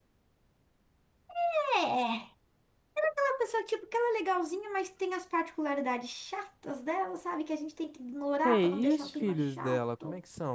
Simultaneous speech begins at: 8.4 s

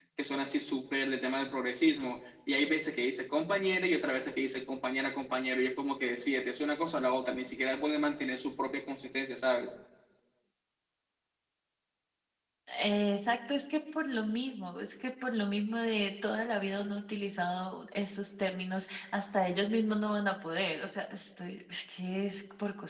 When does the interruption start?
none

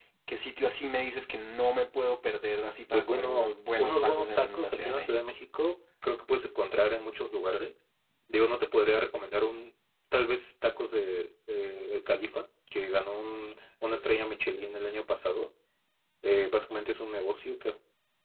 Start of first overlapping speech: 2.9 s

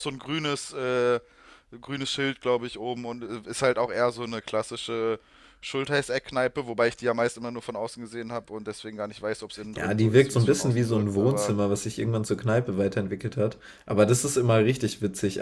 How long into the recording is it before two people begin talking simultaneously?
9.8 s

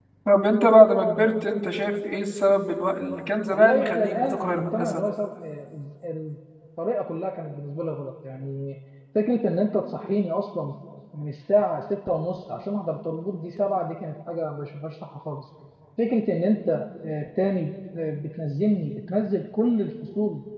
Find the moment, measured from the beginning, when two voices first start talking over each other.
3.5 s

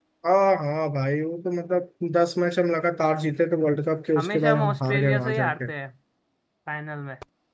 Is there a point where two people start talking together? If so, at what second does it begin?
4.2 s

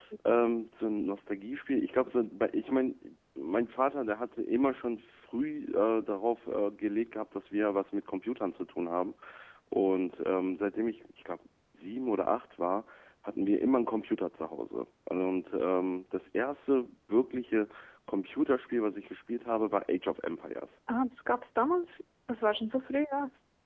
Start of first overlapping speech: none

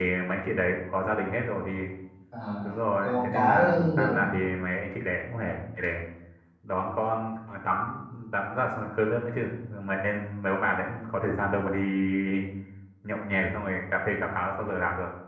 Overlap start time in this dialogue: 3.0 s

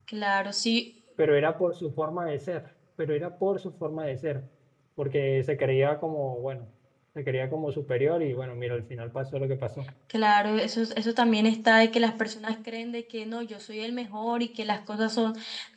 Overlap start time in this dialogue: none

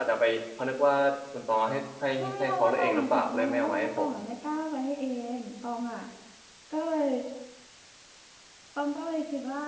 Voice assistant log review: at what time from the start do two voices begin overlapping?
2.2 s

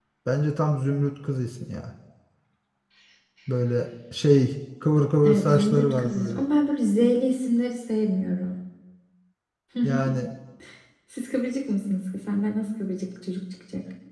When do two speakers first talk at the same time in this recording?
5.2 s

